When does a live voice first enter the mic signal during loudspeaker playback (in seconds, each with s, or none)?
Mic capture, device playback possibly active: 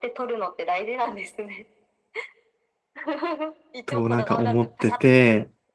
3.9 s